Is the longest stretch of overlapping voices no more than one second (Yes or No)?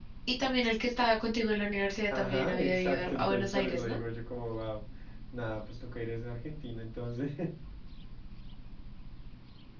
No